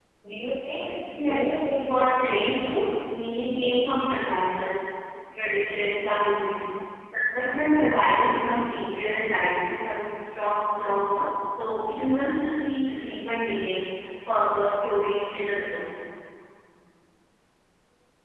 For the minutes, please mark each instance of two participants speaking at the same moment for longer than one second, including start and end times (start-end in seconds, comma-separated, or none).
1.2-2.9